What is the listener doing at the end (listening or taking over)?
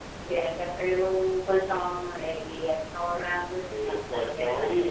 taking over